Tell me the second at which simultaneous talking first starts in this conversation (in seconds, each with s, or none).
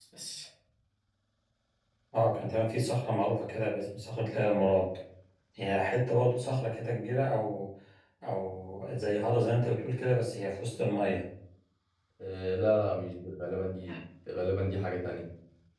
none